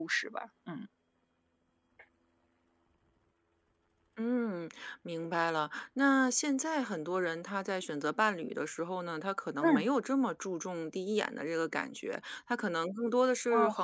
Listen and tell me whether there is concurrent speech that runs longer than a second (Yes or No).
No